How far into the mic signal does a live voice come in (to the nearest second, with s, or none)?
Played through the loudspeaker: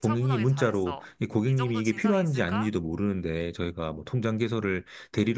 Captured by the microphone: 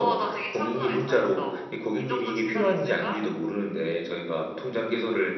none